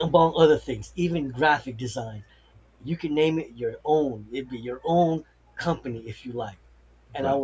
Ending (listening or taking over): listening